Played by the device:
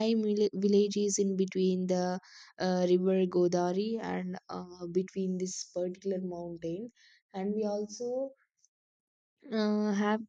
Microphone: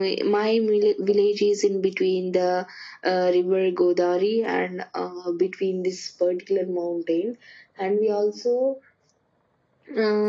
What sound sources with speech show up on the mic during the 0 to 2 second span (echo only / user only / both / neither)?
echo only